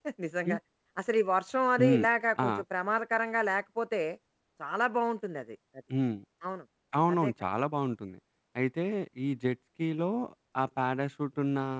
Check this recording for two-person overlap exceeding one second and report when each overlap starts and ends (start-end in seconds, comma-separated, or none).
none